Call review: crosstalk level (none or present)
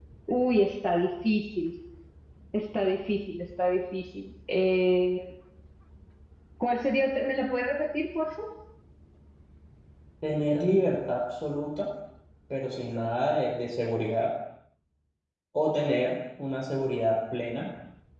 none